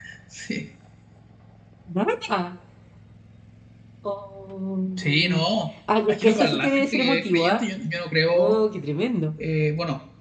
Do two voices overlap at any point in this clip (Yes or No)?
Yes